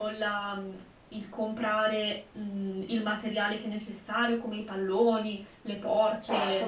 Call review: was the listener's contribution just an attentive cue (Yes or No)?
Yes